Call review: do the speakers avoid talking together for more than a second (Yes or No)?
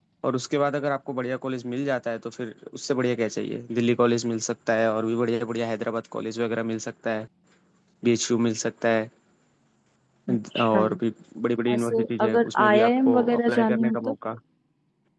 No